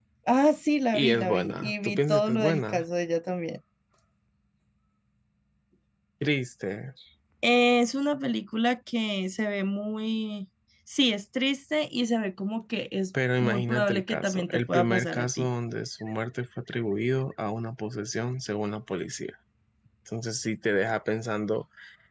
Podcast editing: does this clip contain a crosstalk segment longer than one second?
Yes, from 0.9 s

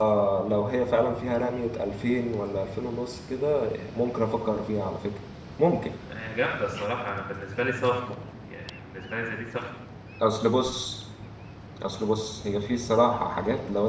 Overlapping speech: No

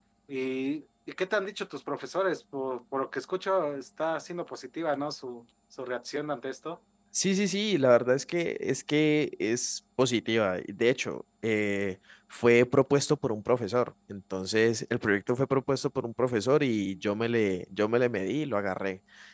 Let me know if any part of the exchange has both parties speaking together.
No

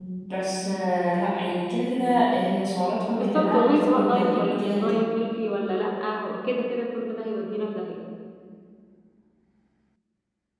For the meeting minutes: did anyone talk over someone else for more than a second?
Yes, from 3.2 s

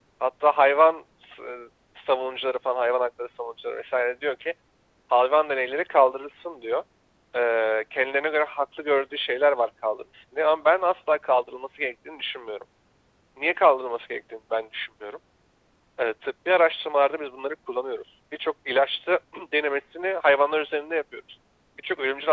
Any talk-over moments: No

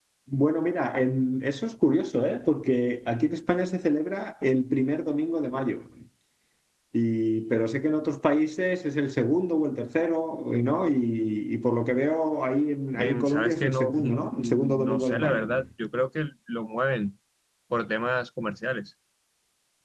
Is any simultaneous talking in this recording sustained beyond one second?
Yes, from 12.9 s

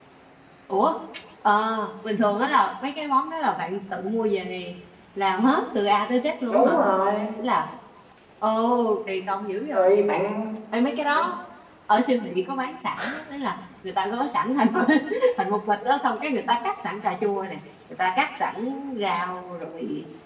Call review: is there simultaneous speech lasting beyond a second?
No

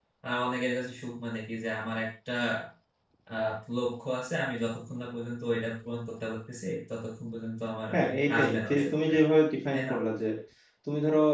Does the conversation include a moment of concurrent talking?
Yes, from 7.9 s

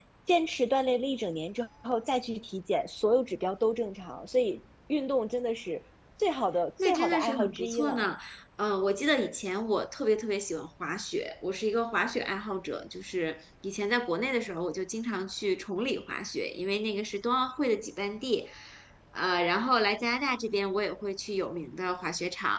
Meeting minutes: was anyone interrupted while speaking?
Yes, from 6.8 s

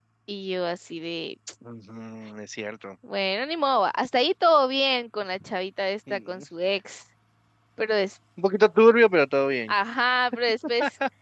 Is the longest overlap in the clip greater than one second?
No

